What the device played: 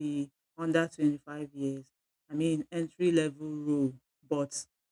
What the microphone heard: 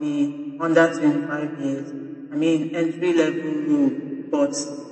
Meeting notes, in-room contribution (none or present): none